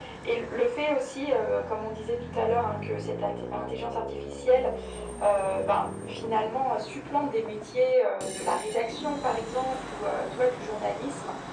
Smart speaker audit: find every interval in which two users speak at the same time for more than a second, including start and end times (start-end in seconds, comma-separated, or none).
none